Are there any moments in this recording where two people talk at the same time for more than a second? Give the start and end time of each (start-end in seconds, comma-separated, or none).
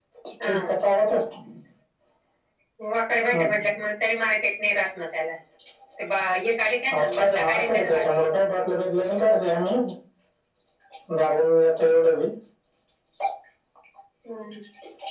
6.9-8.3